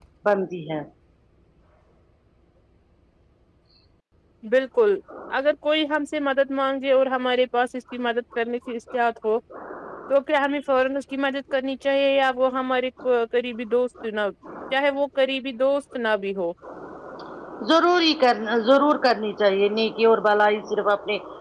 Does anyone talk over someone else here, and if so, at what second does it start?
none

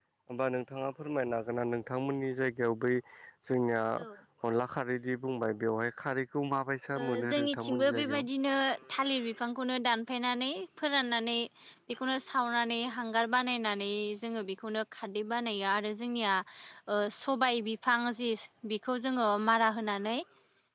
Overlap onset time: 7.0 s

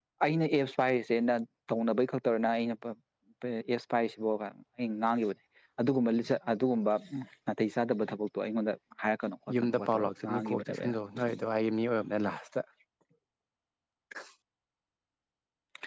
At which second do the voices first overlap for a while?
9.5 s

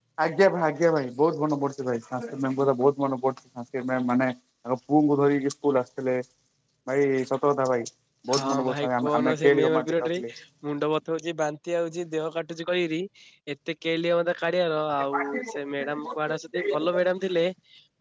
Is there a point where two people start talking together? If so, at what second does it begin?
8.3 s

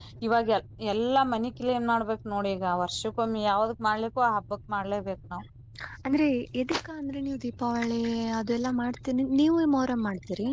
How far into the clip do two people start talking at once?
none

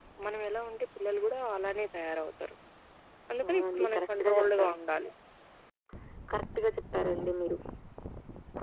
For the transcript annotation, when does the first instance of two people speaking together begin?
3.5 s

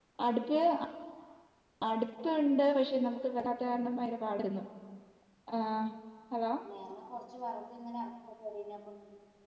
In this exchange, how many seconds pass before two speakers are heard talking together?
none

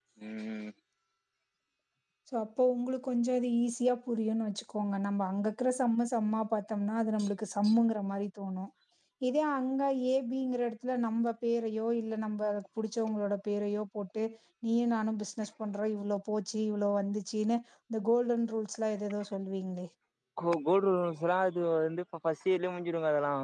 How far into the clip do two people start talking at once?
none

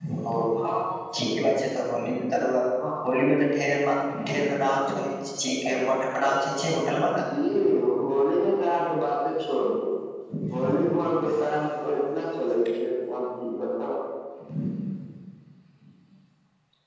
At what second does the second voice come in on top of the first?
none

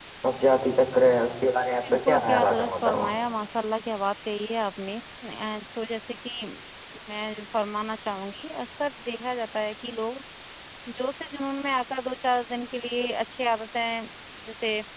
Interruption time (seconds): 1.8 s

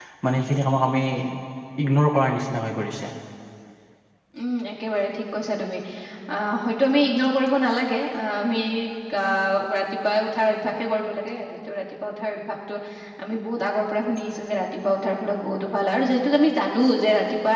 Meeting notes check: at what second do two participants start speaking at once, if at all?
none

